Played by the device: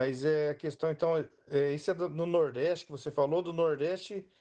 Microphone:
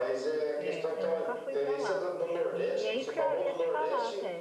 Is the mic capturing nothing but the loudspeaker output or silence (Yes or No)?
No